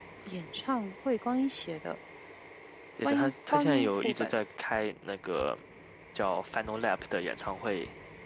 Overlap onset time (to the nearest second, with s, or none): 3 s